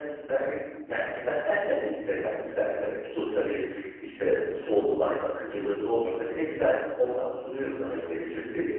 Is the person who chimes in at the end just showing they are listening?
No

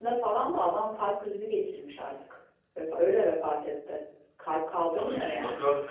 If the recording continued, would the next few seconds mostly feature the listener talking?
Yes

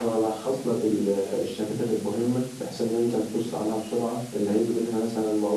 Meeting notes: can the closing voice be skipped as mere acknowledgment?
Yes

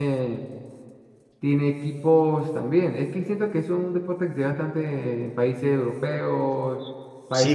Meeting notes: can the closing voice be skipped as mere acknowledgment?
No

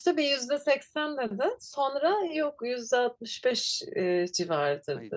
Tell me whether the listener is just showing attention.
No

